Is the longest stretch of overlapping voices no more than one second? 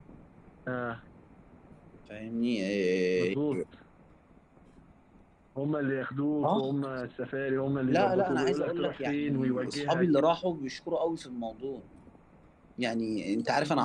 No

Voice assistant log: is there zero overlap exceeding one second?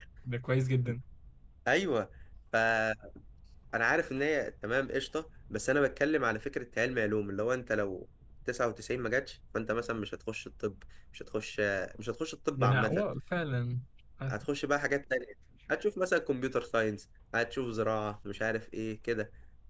Yes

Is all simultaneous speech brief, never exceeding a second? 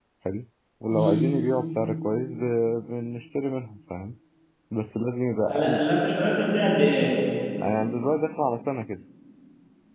Yes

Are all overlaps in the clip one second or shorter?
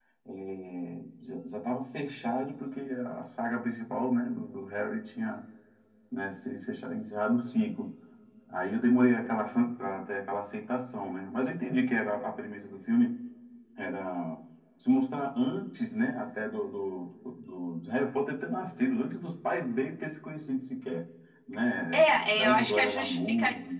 No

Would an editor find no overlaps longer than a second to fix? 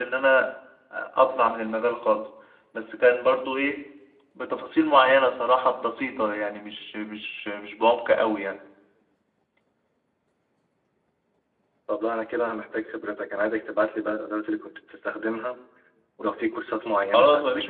Yes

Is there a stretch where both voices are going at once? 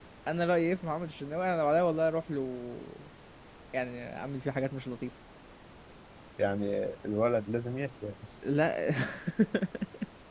No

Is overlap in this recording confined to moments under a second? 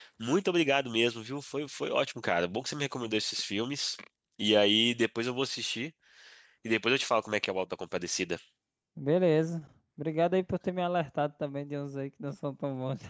Yes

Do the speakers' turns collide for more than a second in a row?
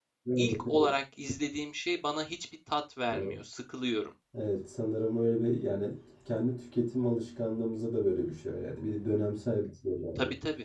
No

